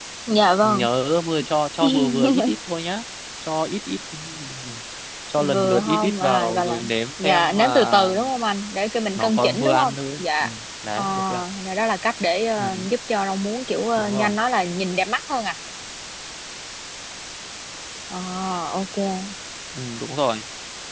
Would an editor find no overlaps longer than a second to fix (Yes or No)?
No